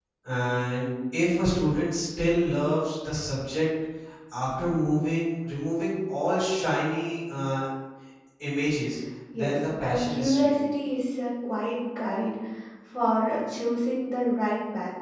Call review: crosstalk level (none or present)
present